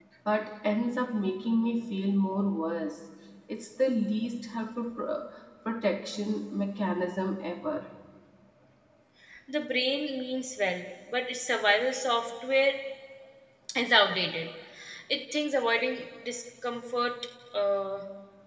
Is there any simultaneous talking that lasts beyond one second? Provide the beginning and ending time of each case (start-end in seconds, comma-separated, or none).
none